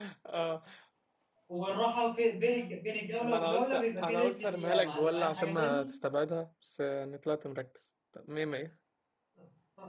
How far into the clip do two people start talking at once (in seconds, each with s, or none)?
3.2 s